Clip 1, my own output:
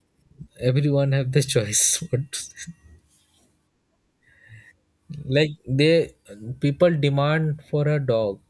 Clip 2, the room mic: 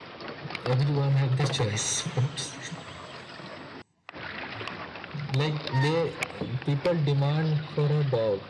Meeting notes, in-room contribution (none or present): none